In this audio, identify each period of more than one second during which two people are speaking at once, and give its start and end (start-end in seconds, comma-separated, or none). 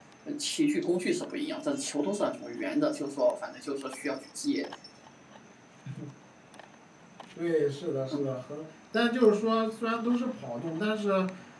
none